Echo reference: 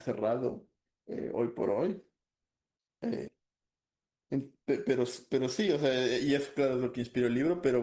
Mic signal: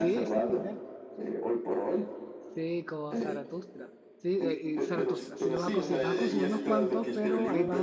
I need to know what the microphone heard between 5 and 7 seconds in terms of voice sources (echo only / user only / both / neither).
both